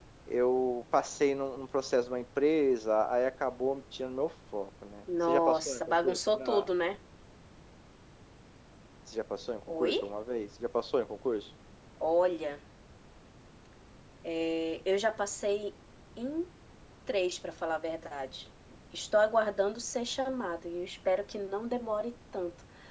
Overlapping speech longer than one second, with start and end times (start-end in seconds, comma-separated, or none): 5.2-6.7